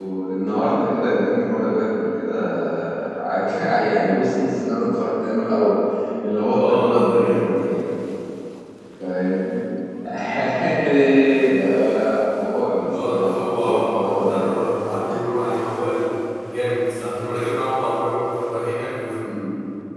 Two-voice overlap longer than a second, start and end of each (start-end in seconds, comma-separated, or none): 6.6-7.9, 13.0-14.5